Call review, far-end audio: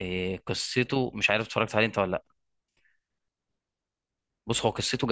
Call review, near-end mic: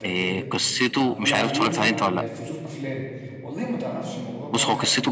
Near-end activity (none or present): present